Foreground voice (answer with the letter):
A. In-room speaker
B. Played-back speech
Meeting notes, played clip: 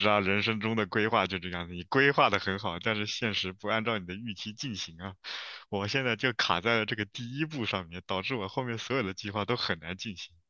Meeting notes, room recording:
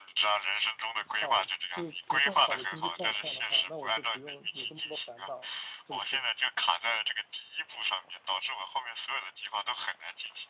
B